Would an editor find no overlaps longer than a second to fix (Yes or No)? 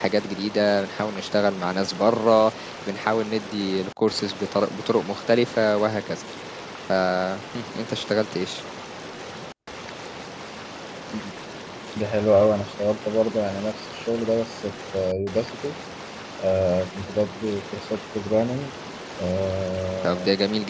Yes